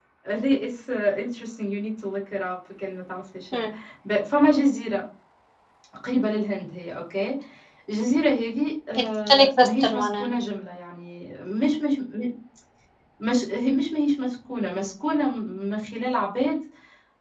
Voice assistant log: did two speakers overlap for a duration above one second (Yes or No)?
Yes